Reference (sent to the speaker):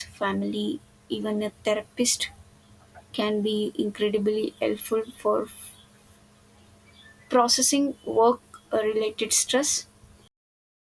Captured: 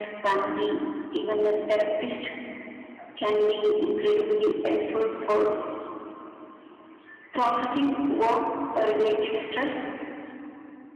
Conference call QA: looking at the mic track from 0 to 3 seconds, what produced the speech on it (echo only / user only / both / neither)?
echo only